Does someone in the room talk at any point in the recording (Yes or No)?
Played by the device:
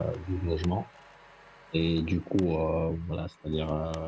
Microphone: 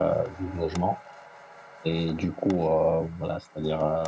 No